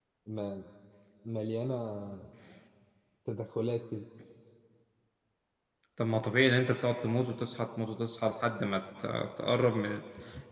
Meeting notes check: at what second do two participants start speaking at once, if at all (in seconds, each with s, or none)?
none